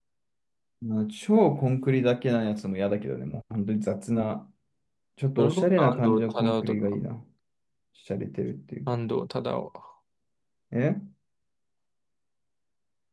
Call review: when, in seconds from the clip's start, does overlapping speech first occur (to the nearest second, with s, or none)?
5 s